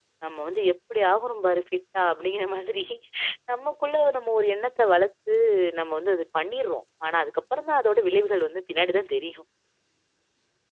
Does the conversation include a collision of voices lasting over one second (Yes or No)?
No